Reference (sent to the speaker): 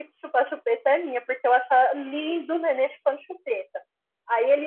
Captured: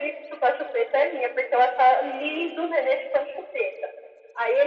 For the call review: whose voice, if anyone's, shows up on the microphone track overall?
echo only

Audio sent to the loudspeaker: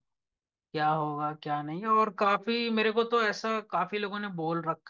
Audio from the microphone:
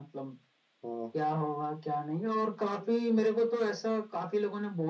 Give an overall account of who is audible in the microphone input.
both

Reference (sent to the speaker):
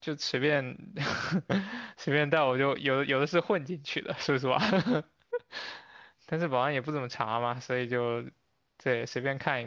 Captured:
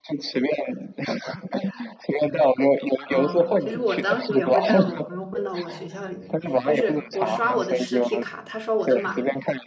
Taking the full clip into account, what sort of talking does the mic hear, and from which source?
both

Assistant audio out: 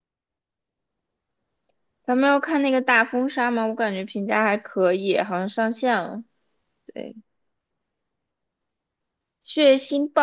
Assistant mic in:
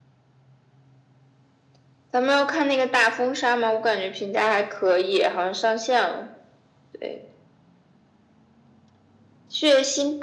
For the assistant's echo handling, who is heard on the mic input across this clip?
echo only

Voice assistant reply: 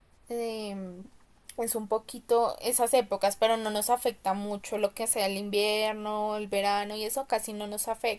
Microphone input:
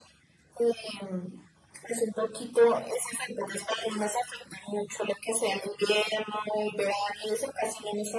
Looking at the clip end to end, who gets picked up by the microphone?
echo only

